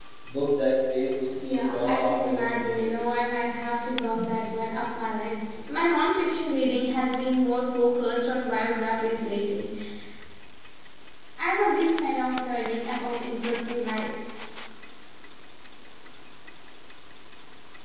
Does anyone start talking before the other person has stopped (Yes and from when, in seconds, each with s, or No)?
Yes, from 1.4 s